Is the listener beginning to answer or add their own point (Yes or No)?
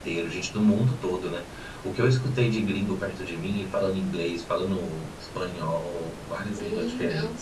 Yes